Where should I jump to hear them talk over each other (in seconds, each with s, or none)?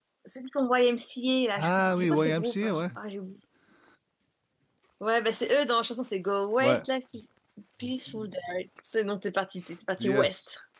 1.6 s